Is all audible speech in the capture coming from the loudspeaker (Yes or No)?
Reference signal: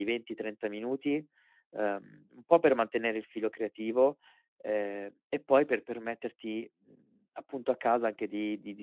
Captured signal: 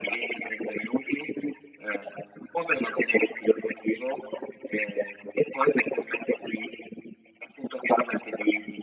Yes